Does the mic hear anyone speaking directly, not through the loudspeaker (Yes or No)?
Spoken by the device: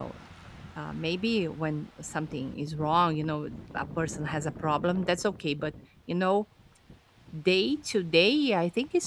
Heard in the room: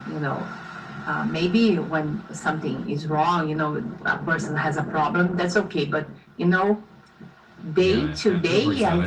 Yes